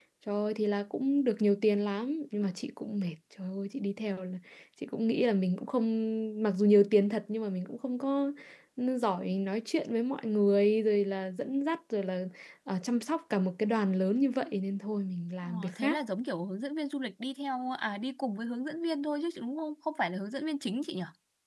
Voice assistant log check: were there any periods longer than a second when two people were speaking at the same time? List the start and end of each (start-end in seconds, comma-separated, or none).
none